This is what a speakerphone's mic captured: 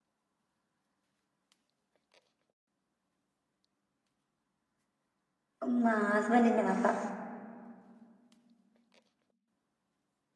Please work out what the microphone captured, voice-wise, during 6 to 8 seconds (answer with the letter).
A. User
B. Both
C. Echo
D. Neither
A